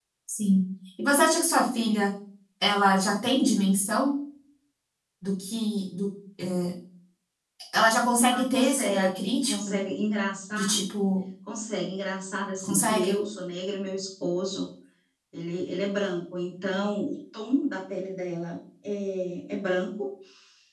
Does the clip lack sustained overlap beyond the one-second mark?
No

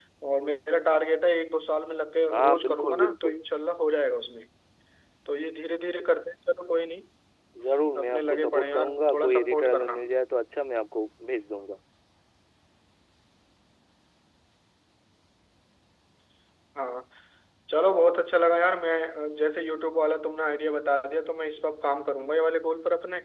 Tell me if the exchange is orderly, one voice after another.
No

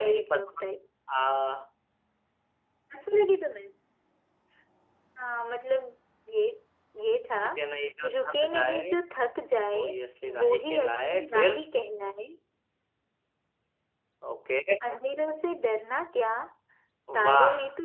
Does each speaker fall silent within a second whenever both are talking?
No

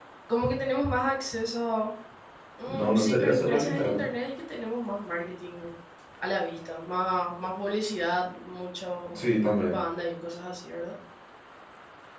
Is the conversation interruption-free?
No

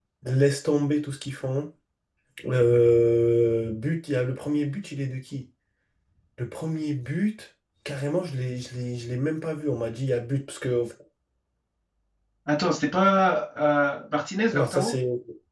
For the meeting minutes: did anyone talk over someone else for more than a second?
No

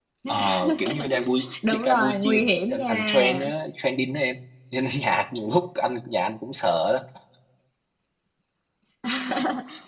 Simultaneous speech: Yes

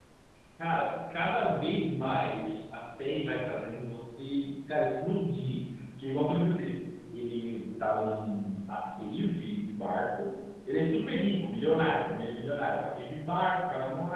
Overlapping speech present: No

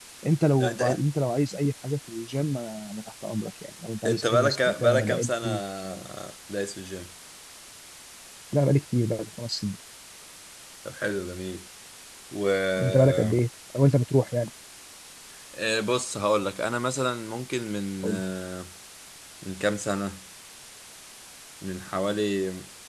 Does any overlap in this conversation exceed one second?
Yes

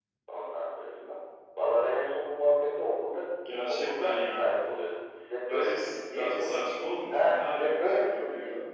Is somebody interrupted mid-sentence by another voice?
Yes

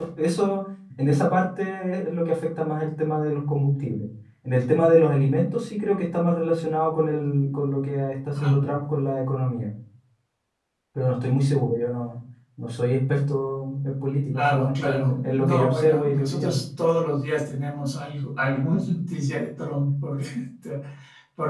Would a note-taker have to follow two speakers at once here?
Yes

